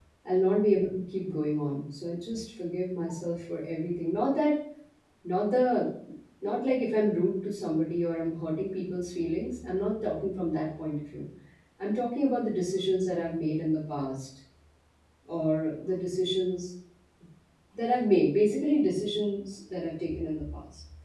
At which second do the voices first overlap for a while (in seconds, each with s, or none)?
none